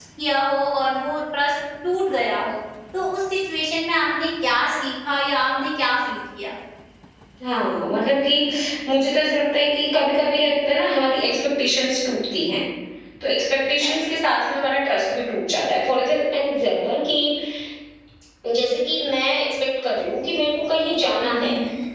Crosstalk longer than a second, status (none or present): none